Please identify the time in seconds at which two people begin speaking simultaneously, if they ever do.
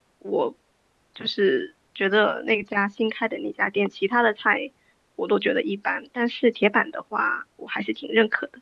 none

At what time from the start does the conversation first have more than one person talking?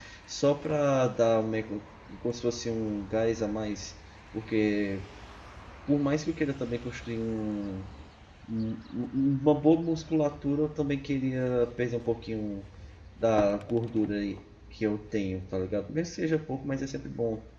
none

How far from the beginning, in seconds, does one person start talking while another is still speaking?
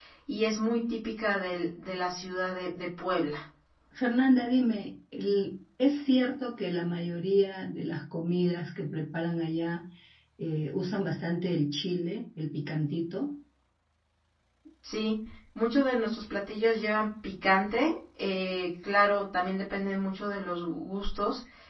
none

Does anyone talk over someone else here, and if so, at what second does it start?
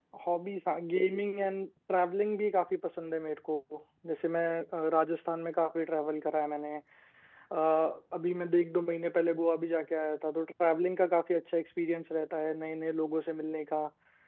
none

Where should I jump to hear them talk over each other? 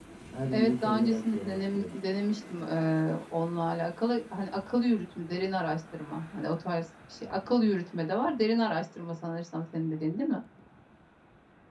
0.5 s

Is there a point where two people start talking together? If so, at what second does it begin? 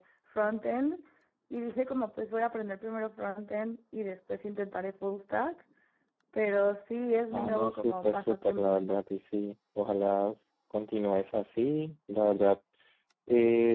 7.3 s

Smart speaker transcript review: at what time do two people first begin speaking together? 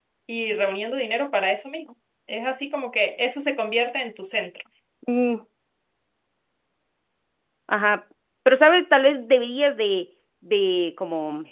none

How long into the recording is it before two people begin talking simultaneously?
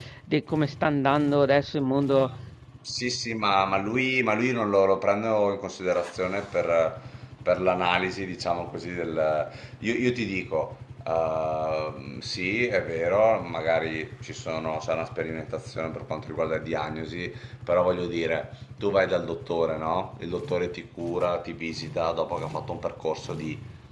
none

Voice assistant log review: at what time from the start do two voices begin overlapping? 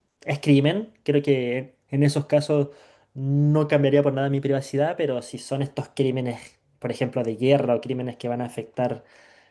none

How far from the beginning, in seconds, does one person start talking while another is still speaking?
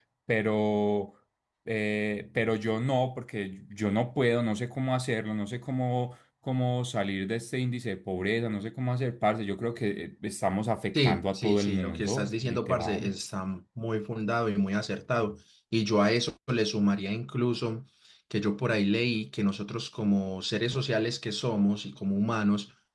10.9 s

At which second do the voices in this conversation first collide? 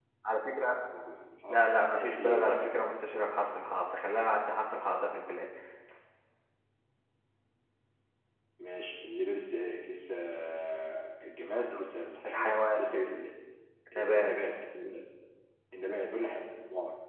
1.5 s

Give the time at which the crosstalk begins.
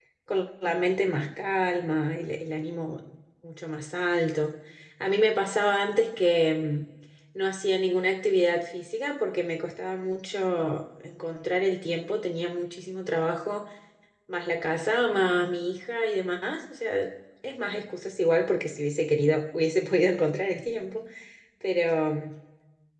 none

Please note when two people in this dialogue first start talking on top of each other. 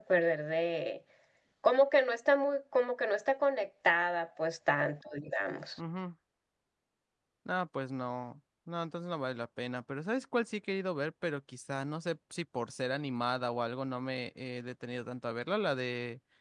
none

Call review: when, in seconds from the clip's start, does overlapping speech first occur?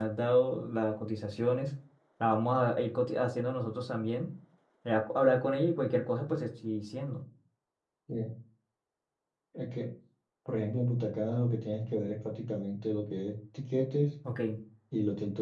none

